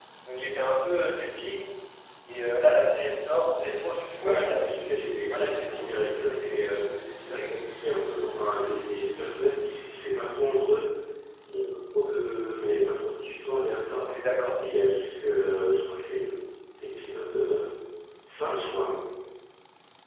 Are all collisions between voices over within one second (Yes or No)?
No